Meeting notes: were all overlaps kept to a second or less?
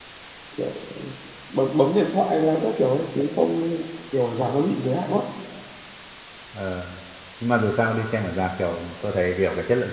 Yes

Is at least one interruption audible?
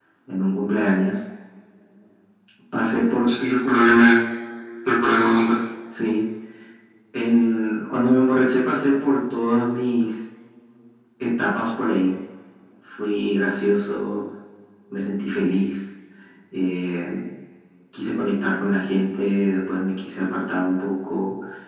No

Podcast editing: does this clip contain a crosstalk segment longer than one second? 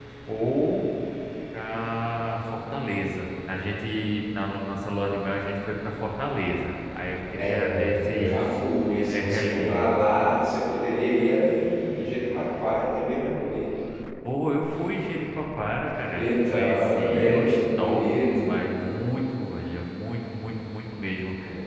Yes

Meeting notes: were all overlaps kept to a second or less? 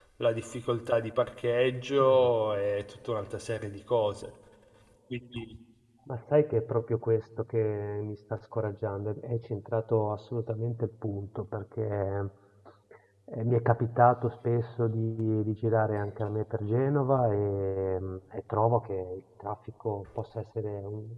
Yes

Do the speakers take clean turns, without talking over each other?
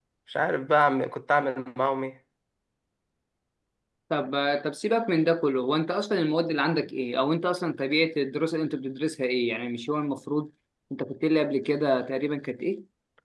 Yes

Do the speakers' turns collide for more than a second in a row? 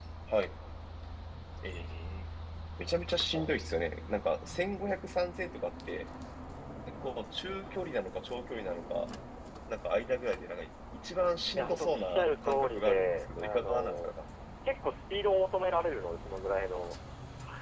Yes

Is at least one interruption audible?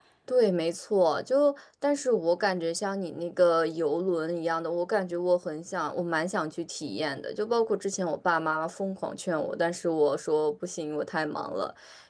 No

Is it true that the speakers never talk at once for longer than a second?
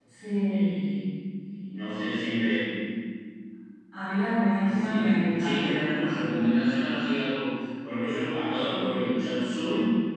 No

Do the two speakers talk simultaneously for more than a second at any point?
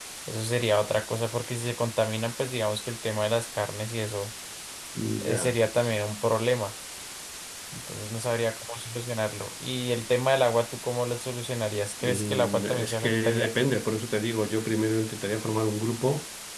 Yes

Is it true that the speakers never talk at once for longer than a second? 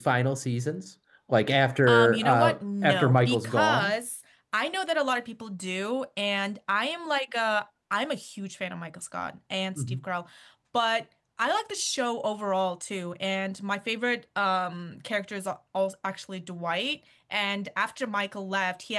No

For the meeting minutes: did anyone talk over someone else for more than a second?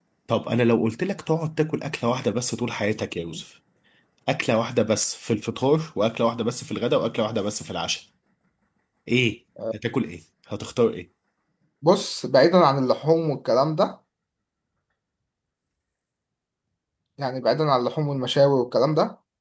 No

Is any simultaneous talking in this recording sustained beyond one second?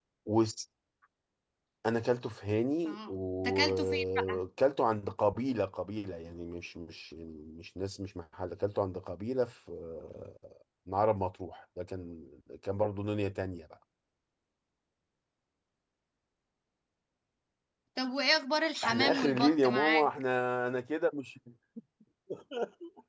Yes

